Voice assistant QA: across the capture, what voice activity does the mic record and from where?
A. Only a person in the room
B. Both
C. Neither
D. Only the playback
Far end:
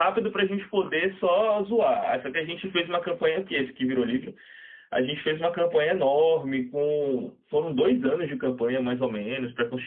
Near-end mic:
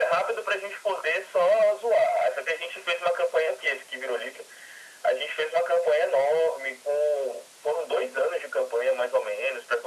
D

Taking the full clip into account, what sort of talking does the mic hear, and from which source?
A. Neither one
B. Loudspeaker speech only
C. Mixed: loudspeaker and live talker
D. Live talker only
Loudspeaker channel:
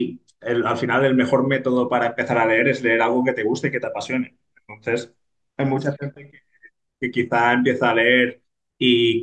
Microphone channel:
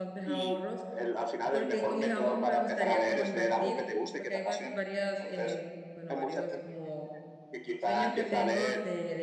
C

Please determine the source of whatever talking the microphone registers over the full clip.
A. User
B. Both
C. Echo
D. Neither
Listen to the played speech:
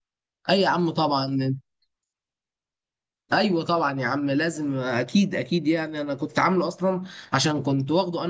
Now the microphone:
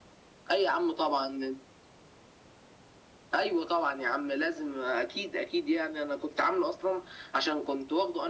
C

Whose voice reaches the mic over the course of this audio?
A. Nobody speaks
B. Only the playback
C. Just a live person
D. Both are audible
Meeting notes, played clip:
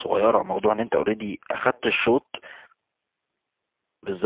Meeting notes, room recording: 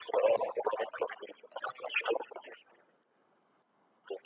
B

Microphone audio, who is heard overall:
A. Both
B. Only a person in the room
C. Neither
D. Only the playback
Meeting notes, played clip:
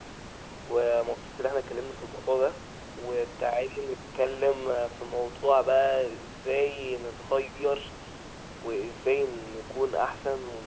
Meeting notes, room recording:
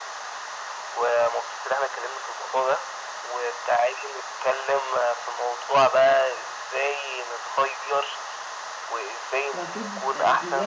A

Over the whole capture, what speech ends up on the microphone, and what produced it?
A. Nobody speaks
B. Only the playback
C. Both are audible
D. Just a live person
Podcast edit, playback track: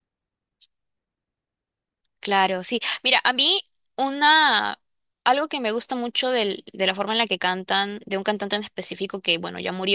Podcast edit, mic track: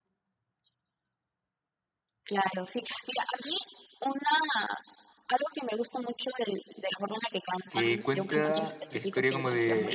C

